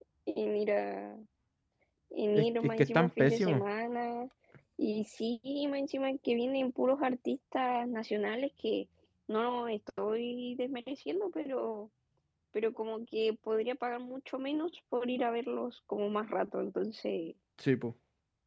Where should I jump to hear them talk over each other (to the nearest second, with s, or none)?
2 s